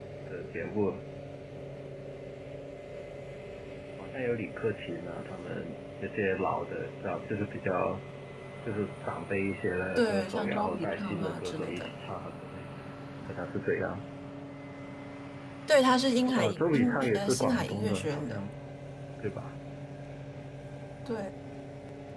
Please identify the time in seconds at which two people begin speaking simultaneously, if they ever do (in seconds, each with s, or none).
10.0 s